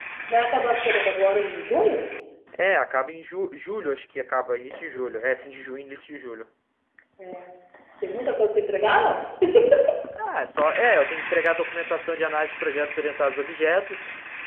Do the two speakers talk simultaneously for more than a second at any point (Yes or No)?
No